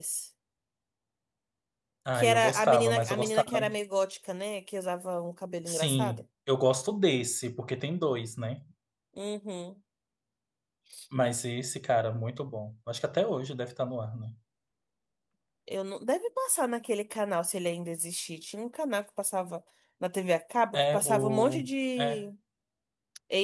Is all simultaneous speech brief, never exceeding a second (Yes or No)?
No